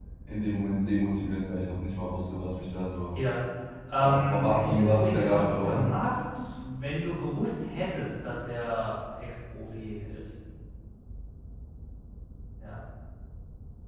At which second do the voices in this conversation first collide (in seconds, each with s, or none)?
3.9 s